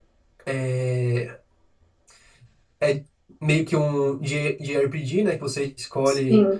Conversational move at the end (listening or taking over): listening